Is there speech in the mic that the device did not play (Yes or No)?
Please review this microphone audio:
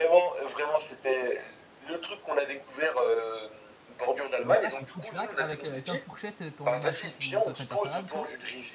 Yes